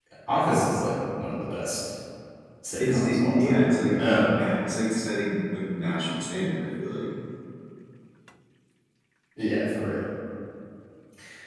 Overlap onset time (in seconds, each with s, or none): 2.8 s